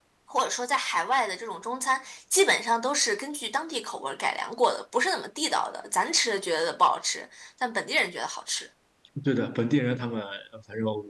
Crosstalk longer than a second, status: none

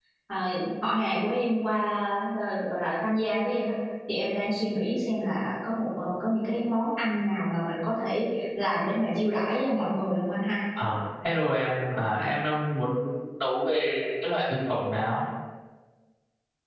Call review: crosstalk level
none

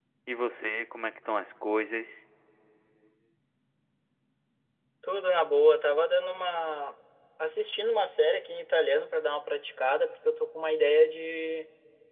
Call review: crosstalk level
none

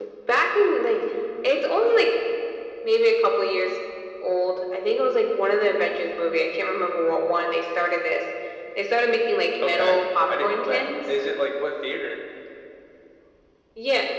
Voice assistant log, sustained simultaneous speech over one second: present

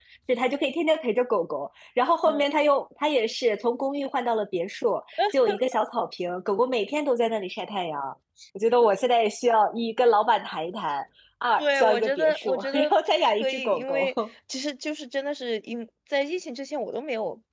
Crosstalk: present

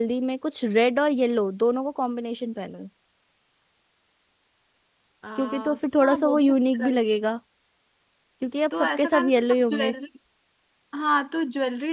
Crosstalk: present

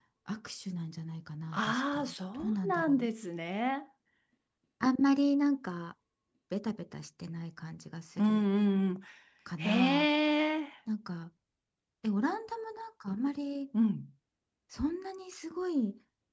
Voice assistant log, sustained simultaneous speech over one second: present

